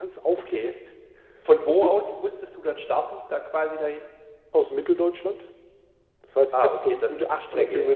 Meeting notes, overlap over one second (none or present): present